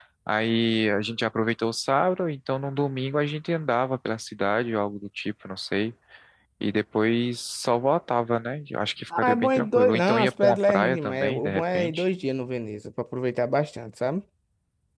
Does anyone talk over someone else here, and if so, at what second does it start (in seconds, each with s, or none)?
9.1 s